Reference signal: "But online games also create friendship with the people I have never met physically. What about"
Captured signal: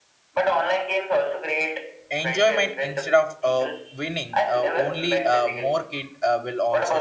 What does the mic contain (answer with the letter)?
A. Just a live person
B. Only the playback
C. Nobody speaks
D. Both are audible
D